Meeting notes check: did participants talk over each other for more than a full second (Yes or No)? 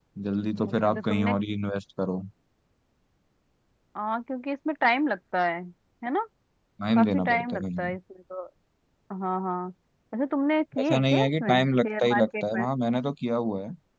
Yes